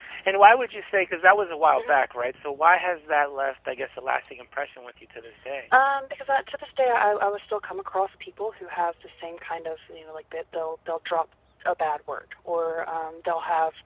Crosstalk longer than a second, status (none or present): none